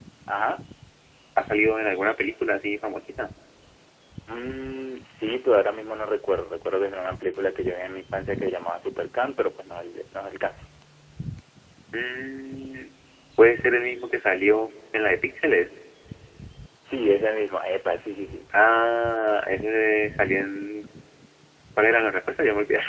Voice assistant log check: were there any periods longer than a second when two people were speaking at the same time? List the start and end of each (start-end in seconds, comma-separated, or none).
none